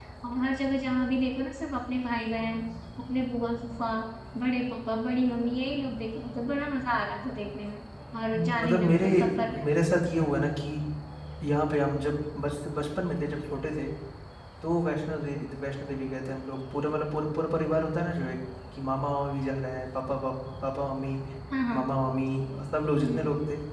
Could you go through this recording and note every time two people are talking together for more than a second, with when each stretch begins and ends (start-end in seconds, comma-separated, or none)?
8.3-9.7